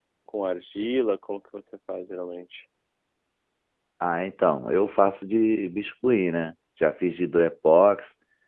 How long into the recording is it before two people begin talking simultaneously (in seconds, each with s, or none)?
none